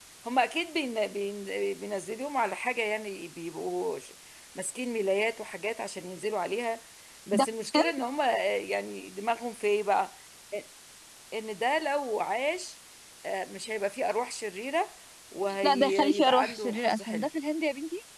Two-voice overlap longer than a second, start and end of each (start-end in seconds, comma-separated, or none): 15.6-17.3